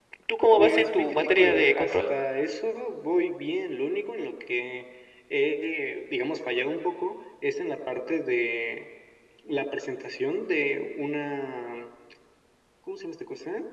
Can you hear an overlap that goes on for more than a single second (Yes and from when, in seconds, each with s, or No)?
Yes, from 0.6 s